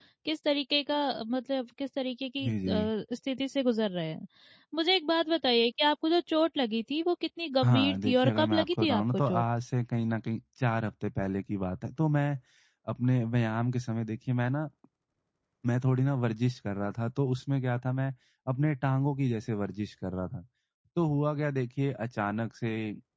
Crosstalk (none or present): present